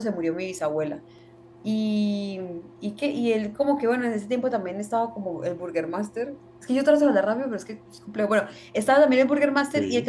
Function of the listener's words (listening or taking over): listening